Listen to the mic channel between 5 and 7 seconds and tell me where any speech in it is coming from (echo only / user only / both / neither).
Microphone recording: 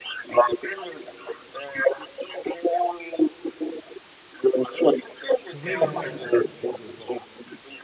both